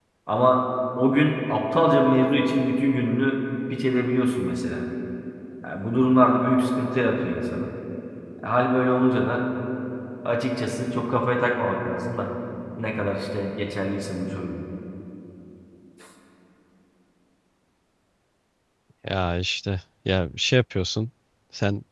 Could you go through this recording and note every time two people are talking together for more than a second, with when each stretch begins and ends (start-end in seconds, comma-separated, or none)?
none